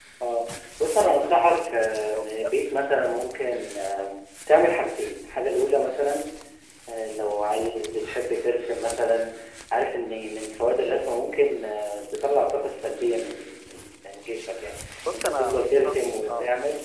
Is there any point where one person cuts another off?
Yes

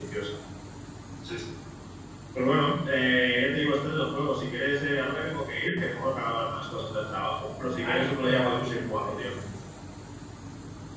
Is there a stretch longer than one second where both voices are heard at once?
Yes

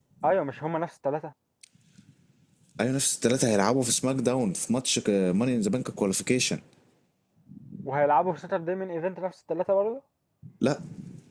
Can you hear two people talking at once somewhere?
No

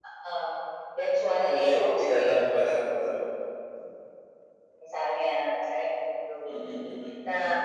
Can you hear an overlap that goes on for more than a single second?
Yes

